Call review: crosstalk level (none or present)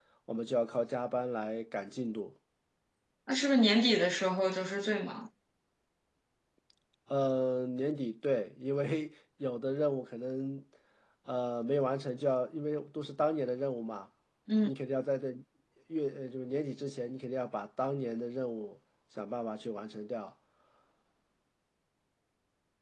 none